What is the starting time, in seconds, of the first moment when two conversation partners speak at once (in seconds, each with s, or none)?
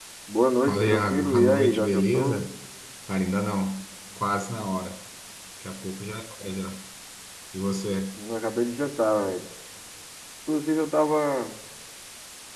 0.7 s